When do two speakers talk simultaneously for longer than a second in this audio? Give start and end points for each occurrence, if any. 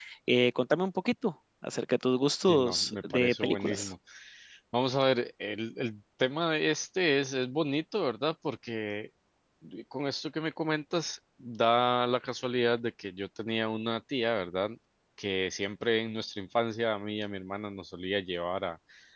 2.5-3.9

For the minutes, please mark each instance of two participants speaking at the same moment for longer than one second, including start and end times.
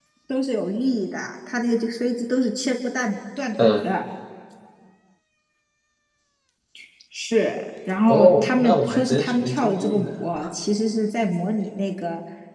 8.1-10.1

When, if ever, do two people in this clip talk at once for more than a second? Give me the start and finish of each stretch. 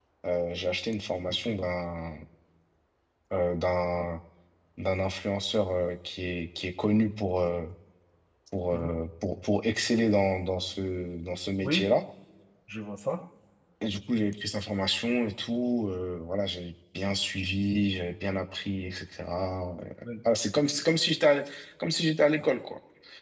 none

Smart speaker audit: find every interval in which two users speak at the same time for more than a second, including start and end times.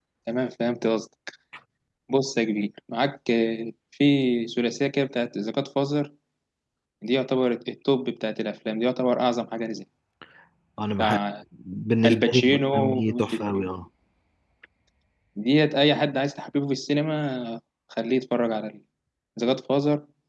12.1-13.7

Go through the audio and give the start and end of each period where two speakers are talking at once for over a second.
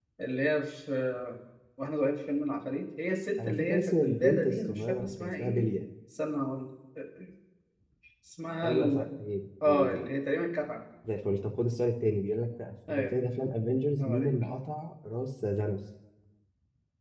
3.4-5.7

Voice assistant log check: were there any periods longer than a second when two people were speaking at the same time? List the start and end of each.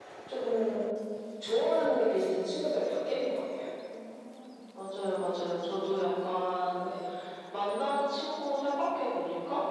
none

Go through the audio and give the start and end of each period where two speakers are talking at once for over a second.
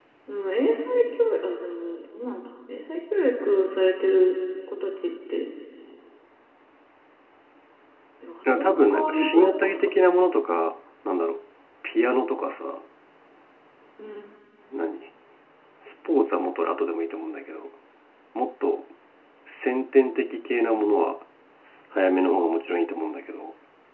8.5-9.8

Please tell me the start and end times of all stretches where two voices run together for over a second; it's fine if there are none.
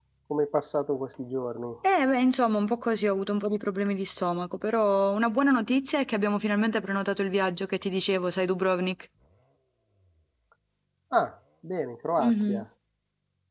none

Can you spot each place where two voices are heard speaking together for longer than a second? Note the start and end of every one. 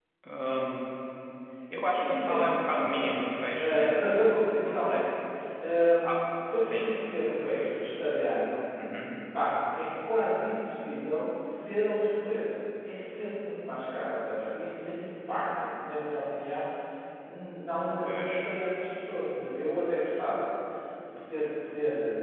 1.9-3.1, 3.6-5.1

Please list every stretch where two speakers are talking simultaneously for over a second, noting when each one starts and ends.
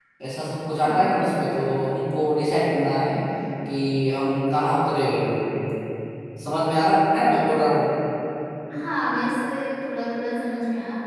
none

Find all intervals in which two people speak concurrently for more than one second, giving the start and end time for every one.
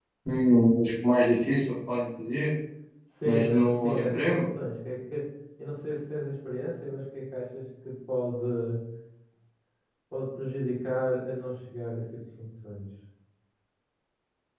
3.2-4.5

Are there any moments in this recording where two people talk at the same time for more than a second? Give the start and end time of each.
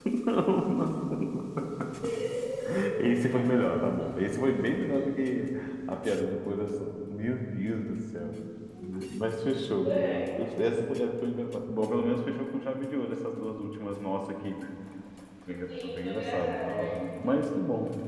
15.7-17.0

